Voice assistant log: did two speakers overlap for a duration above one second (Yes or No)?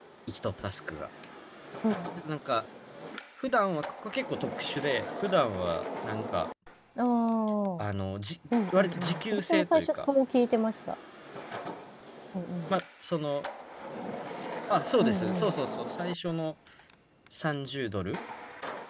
Yes